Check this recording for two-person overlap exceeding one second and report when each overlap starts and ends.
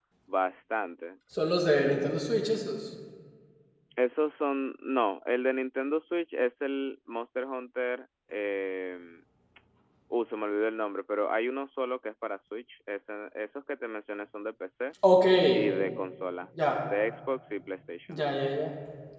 none

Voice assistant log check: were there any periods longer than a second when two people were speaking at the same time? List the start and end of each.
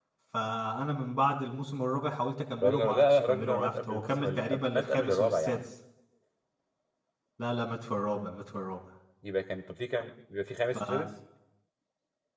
2.6-5.6

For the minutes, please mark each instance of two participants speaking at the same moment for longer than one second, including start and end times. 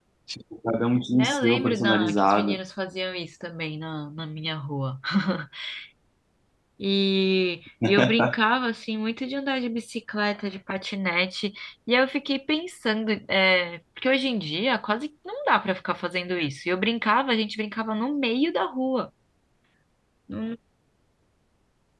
1.2-2.6

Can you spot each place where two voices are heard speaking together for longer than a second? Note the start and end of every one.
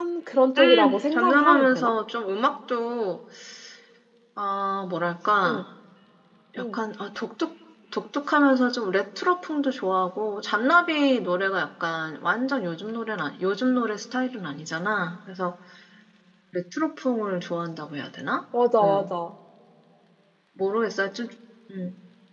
0.6-1.9

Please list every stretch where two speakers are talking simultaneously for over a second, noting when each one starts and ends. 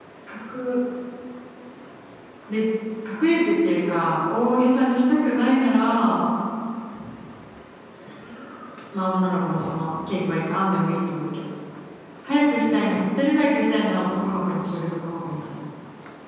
14.1-15.5

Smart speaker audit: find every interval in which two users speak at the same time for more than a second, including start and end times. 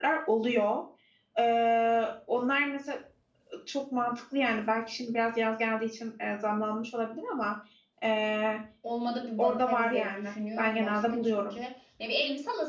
9.4-11.6

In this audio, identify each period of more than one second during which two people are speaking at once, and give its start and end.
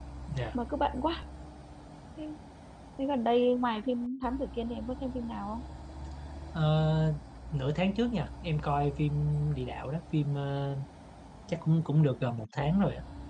none

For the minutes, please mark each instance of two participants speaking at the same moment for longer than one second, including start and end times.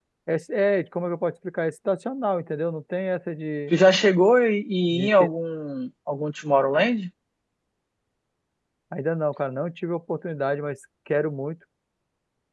none

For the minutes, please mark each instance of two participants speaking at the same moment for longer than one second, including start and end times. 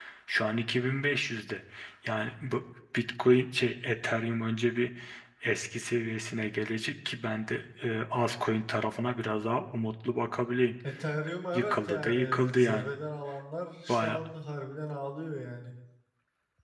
11.5-12.9

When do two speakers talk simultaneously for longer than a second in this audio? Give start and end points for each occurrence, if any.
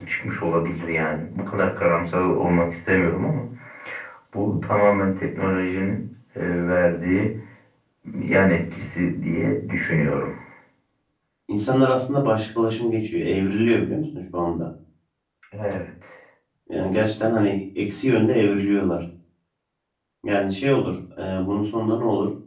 none

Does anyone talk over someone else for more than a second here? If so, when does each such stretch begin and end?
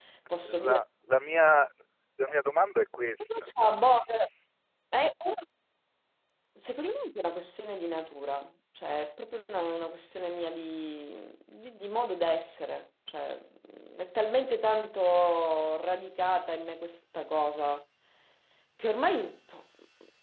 none

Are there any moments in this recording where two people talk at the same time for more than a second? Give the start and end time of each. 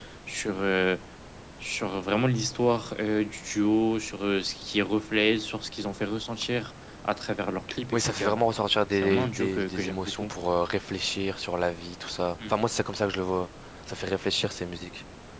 8.9-10.3

